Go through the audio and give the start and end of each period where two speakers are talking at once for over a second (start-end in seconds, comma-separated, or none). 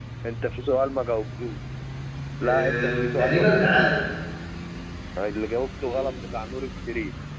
2.4-3.9